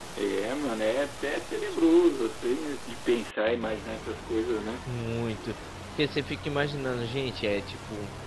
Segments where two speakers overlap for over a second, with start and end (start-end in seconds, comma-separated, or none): none